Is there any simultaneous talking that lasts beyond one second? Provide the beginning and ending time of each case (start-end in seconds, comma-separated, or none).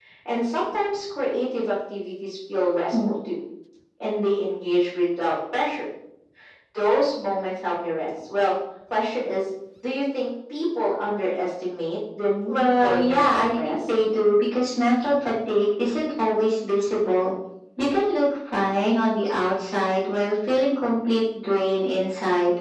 12.5-13.9